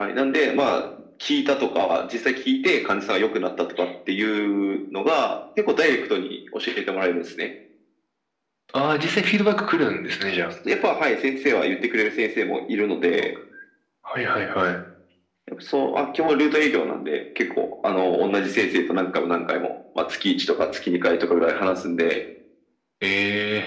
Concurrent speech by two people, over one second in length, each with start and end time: none

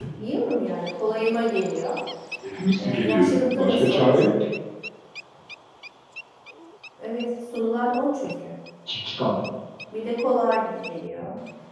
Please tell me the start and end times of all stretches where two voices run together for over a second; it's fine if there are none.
2.8-4.3

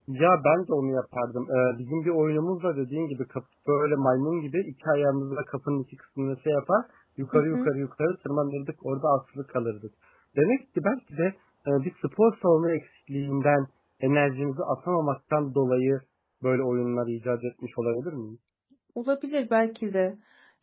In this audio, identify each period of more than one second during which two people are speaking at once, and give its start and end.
none

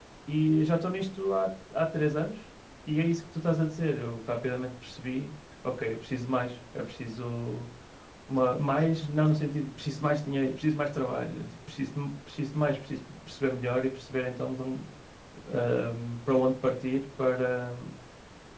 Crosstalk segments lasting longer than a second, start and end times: none

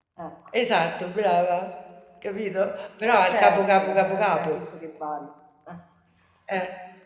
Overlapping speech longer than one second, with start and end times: 3.1-4.6

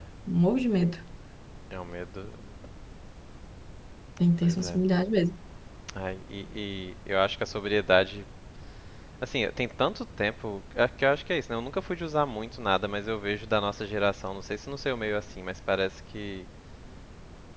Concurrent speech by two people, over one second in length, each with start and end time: none

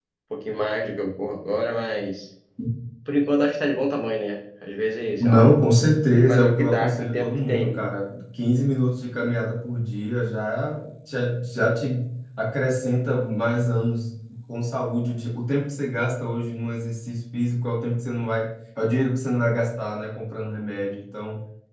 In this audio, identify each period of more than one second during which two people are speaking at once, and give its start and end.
6.3-7.8

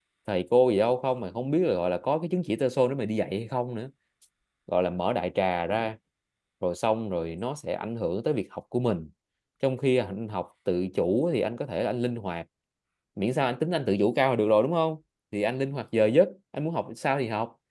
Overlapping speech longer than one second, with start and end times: none

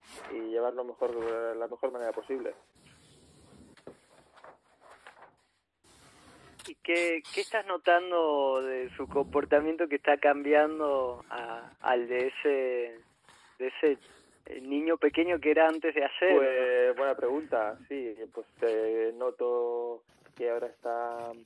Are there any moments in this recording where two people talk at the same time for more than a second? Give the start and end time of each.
none

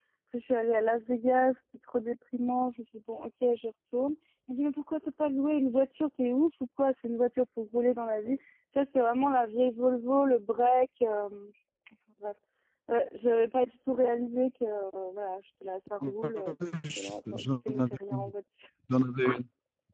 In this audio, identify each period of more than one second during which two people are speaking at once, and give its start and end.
17.0-18.3

